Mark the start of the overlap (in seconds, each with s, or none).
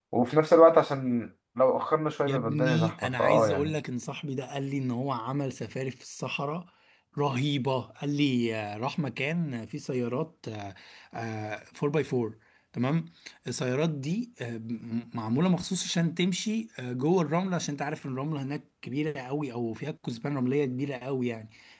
2.3 s